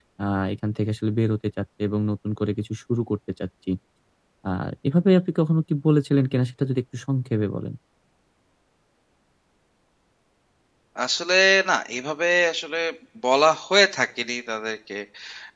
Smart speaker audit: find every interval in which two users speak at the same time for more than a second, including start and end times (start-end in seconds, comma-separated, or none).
none